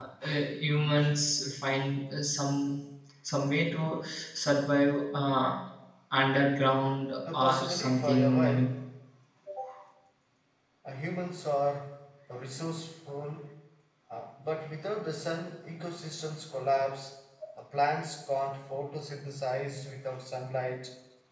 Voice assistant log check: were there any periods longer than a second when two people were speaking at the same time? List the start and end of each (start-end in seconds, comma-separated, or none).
7.3-8.7